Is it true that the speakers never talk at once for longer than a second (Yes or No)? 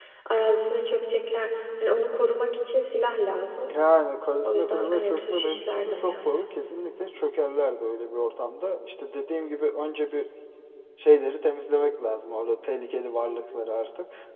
No